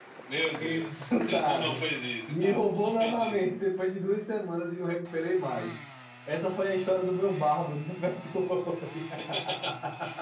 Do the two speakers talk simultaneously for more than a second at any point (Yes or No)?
Yes